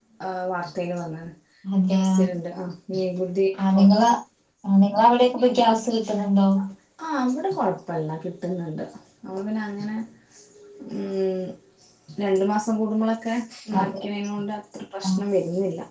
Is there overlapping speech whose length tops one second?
No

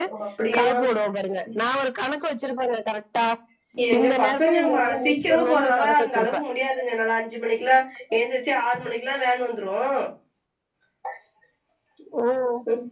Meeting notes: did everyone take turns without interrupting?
No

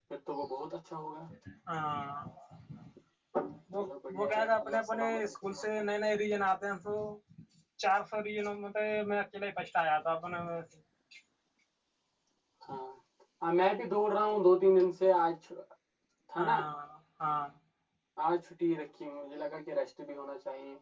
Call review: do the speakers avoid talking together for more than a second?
No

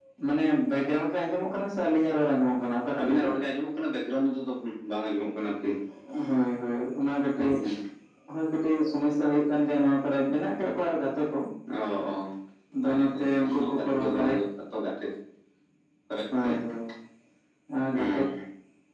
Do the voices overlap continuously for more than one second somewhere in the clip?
Yes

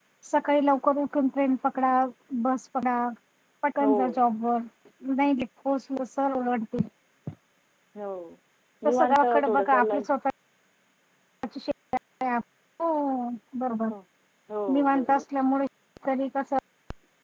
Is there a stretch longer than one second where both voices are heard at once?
Yes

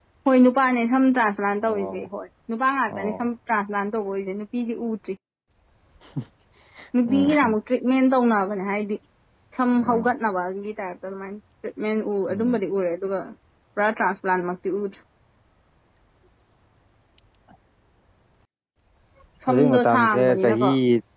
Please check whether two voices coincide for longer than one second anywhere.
Yes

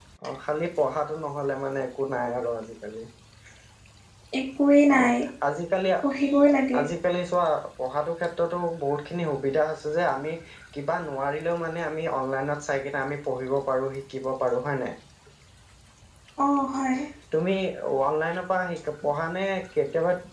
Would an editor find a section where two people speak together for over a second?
No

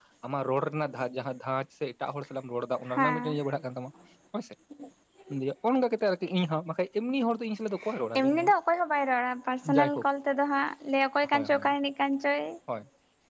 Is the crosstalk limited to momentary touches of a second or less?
Yes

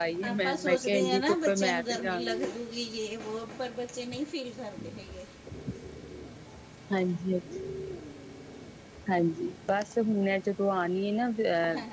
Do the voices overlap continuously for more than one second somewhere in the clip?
Yes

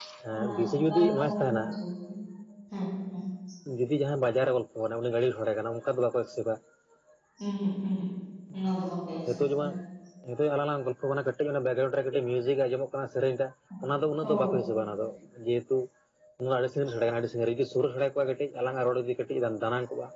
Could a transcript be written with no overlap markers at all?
No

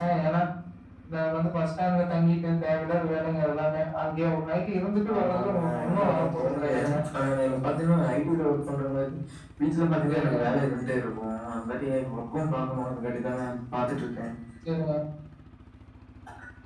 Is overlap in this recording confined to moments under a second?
No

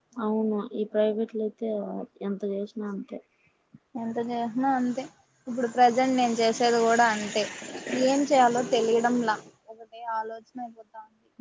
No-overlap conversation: Yes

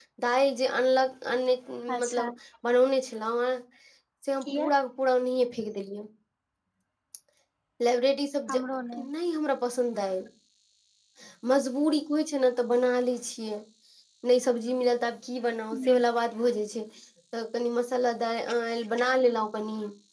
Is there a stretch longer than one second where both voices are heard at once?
No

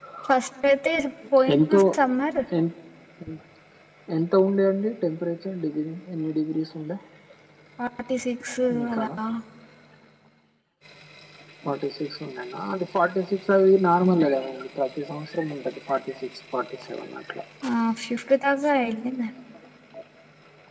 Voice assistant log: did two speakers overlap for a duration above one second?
No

